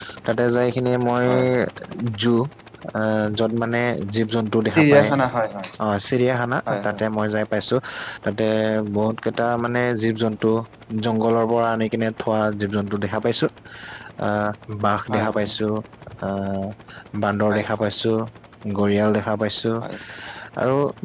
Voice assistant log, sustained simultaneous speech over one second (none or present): none